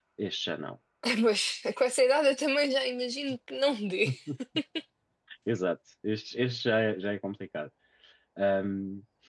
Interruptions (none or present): none